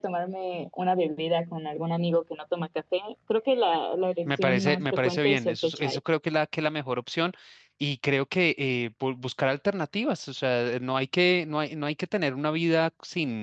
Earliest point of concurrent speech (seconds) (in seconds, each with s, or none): 4.2 s